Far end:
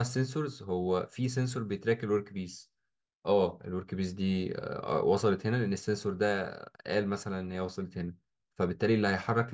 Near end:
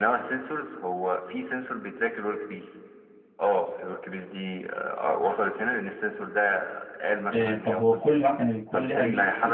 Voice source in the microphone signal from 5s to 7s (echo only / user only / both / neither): echo only